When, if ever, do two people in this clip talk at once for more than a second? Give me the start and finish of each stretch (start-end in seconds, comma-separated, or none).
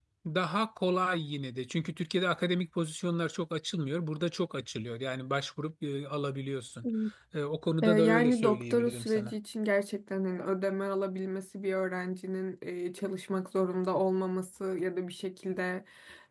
7.8-9.3